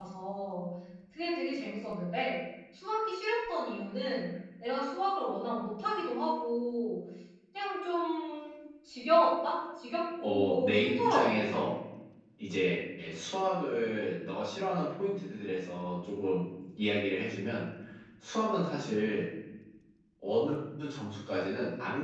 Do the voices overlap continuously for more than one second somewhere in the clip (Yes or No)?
Yes